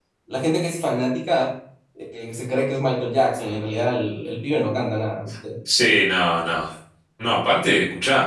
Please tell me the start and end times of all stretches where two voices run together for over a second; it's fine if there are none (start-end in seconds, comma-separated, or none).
none